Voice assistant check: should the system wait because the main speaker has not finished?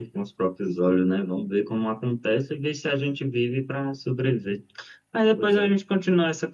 Yes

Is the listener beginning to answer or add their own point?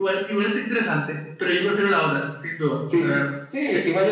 Yes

